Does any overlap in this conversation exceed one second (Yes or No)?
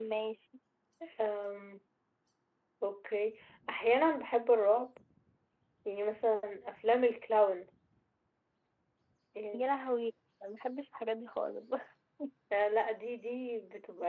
No